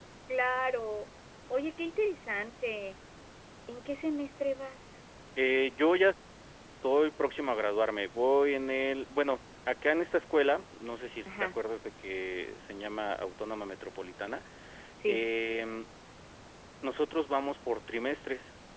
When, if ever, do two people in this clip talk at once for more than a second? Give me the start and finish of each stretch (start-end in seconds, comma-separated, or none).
none